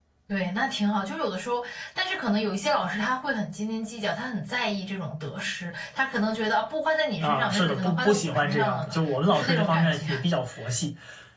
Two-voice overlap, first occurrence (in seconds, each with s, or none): 7.2 s